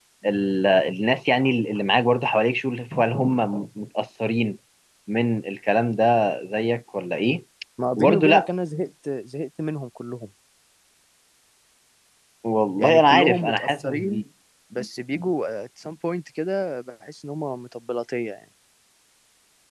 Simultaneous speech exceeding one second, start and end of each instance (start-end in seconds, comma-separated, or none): 12.8-14.2